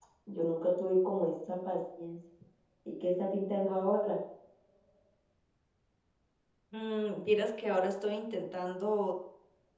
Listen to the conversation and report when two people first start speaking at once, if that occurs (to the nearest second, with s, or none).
none